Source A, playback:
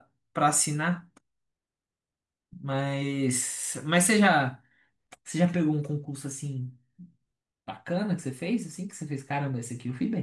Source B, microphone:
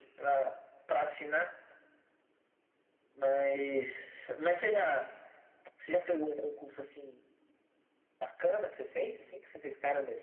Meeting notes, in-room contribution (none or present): none